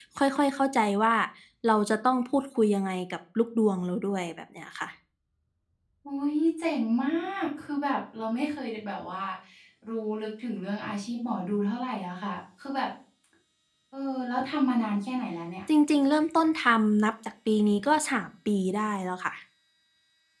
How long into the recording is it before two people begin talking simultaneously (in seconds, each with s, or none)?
none